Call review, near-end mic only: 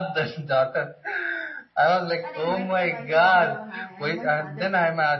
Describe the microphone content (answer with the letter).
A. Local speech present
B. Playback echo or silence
A